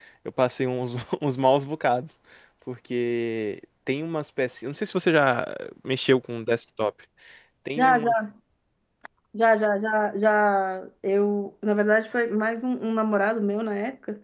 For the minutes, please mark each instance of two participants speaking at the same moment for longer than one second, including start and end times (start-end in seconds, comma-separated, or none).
none